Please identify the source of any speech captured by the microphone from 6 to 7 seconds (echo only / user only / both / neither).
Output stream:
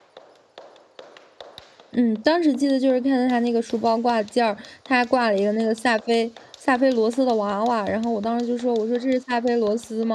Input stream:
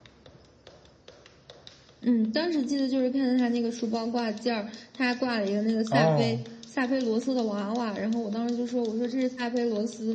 both